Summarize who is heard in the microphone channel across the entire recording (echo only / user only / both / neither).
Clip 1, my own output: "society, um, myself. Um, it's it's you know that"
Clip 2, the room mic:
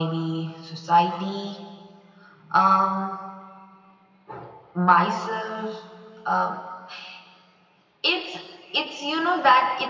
echo only